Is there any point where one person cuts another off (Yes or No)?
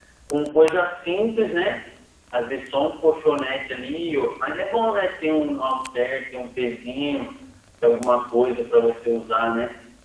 No